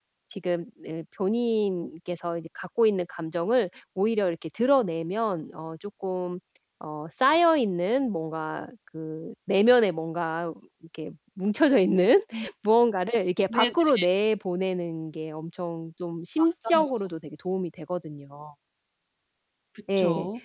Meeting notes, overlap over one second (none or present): none